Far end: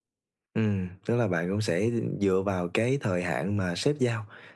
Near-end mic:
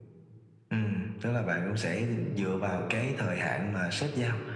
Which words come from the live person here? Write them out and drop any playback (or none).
none